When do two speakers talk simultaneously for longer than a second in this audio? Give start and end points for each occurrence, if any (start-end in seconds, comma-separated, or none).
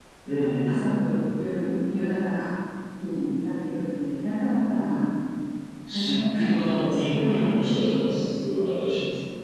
5.9-8.0